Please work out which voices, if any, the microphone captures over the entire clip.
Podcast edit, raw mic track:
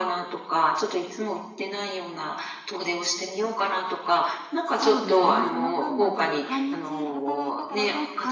both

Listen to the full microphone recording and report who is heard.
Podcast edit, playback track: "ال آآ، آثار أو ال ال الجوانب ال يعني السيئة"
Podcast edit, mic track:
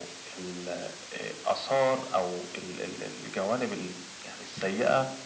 echo only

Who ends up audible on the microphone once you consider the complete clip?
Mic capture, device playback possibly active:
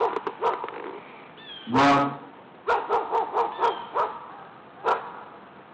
user only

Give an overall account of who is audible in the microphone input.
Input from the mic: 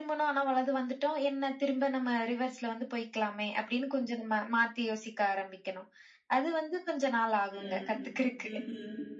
both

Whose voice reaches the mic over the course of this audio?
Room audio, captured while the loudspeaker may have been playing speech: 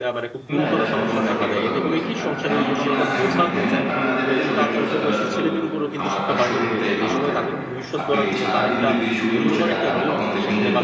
both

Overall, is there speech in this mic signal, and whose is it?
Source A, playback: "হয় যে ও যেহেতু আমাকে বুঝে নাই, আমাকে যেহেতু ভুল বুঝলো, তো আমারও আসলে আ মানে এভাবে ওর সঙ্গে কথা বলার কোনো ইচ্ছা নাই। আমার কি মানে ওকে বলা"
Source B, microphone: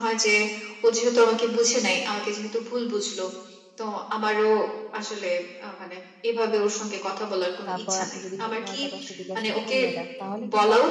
both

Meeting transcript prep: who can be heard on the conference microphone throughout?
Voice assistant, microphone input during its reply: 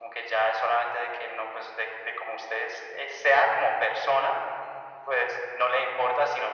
echo only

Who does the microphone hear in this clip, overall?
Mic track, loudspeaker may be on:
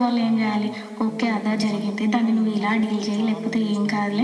both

